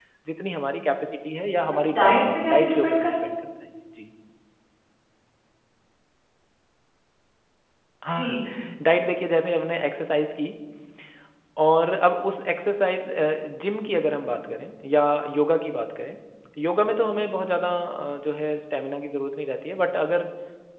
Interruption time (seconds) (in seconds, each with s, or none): 1.6 s